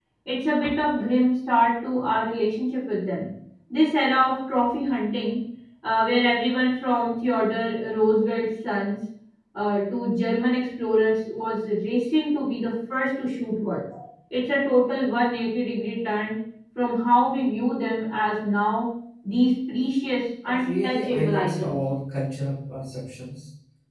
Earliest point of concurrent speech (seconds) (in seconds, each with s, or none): 20.4 s